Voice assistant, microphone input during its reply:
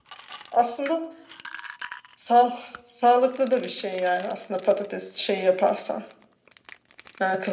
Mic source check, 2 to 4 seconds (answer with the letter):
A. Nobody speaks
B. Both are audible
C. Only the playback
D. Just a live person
C